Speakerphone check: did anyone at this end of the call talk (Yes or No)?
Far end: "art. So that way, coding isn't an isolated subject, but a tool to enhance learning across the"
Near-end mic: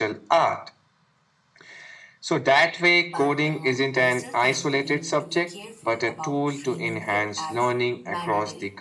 Yes